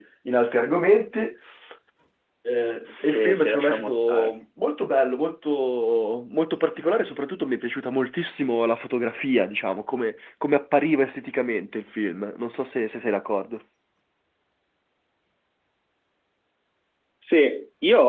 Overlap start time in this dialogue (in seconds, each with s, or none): 2.8 s